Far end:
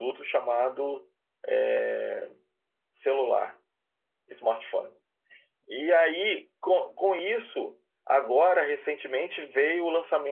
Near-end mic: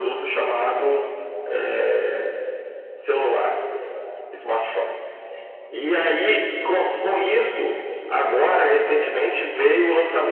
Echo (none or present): present